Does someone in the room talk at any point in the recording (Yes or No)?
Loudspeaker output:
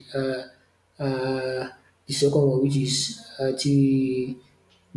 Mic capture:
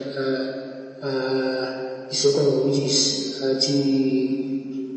No